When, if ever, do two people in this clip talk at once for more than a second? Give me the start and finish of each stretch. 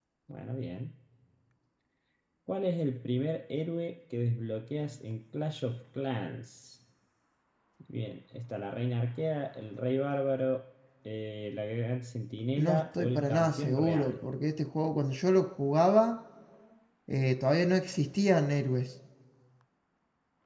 12.6-14.3

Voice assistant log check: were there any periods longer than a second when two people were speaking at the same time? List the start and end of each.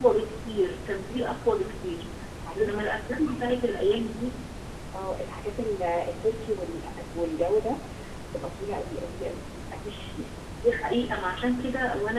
2.6-3.8

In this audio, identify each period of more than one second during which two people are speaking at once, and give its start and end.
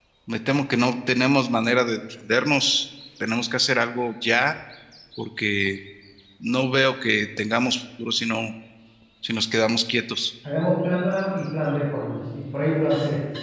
none

